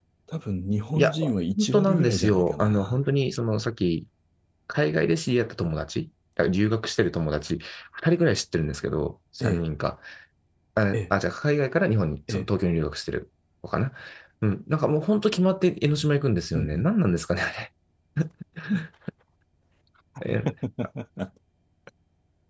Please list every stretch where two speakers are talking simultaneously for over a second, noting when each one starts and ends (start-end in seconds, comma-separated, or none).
1.6-3.0